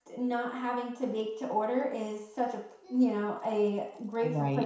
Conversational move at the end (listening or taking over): listening